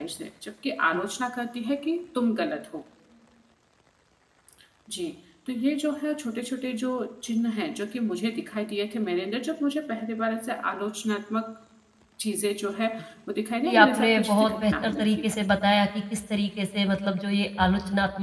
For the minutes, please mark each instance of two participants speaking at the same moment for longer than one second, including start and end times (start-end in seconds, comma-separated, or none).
13.6-15.3